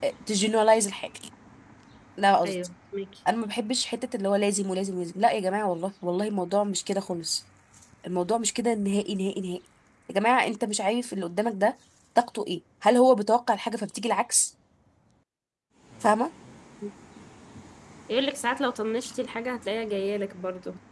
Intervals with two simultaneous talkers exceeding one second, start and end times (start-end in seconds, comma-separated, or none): none